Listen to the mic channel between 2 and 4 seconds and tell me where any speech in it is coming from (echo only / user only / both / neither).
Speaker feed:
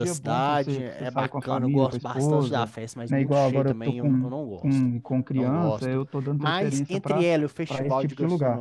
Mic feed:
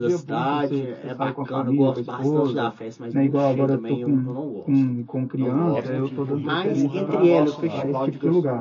echo only